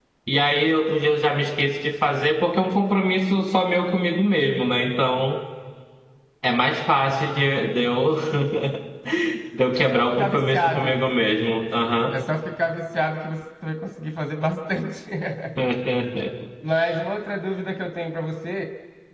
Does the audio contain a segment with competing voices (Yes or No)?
Yes